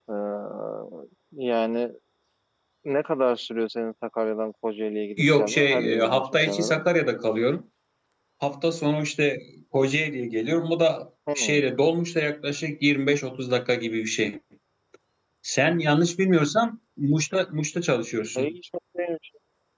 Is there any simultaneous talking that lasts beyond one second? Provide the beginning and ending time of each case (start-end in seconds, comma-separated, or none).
5.2-6.8